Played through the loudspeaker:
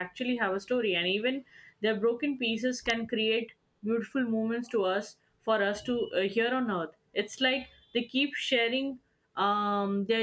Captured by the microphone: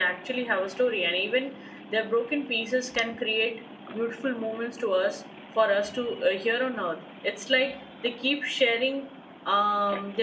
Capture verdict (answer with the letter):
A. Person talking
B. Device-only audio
B